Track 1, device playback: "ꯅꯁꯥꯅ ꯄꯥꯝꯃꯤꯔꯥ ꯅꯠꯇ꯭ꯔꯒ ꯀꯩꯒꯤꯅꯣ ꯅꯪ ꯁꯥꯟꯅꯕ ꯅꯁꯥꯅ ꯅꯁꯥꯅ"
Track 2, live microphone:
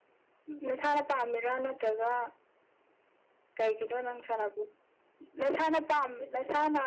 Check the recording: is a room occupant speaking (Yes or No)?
No